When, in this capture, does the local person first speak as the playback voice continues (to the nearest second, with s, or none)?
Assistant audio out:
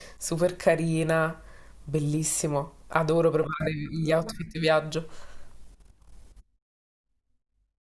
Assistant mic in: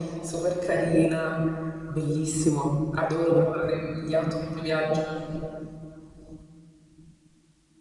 none